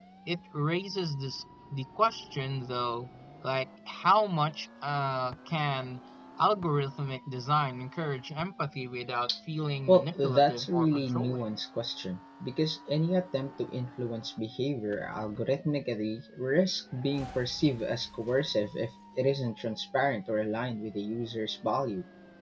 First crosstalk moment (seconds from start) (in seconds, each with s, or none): 9.9 s